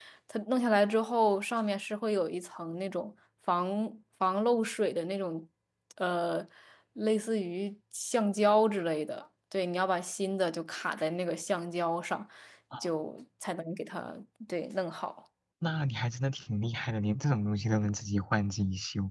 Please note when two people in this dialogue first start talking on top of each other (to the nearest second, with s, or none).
none